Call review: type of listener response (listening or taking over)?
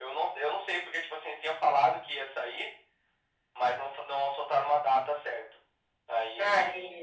listening